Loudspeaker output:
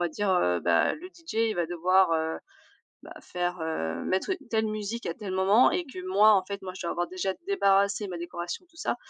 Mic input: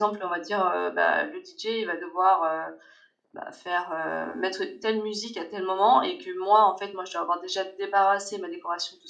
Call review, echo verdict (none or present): present